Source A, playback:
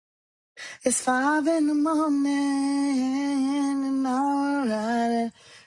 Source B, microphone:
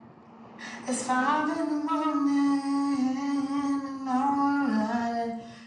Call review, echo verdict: present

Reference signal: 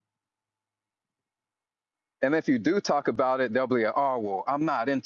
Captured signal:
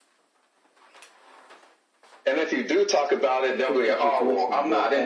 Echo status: present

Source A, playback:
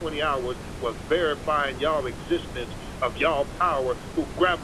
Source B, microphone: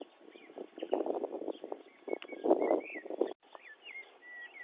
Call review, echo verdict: none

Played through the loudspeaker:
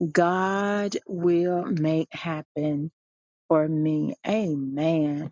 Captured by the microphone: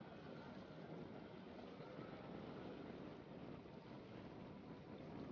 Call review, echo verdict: none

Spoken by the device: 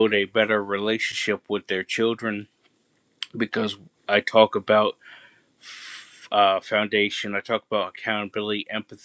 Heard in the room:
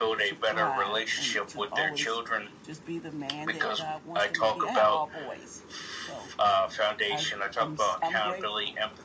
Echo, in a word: present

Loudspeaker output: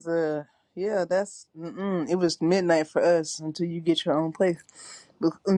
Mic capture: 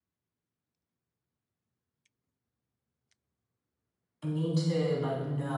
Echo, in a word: none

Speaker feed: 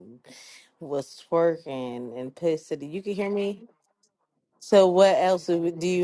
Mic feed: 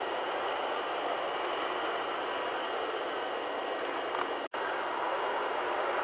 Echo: none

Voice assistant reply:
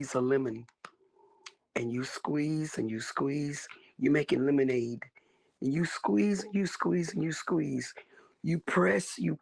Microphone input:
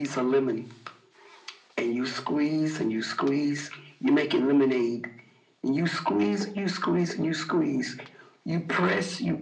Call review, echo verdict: present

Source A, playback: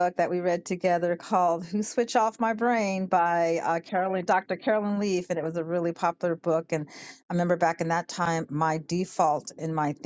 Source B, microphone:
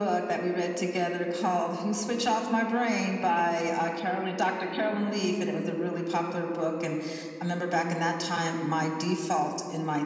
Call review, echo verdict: present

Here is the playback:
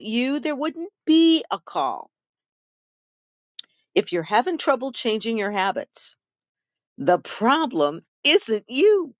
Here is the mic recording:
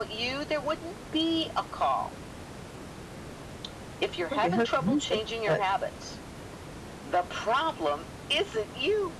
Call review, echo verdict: present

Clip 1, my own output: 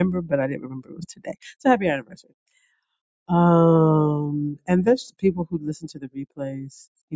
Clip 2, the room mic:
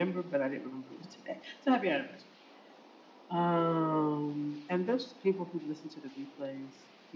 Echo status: present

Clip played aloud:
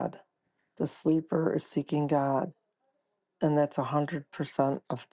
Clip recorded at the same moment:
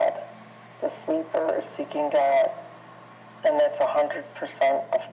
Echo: present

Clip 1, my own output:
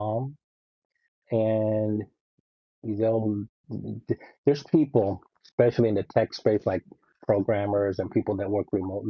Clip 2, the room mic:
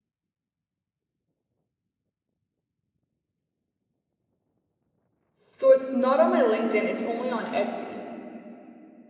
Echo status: none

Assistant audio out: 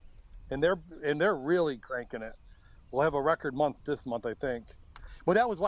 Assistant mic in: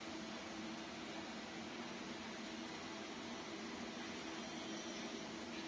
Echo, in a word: none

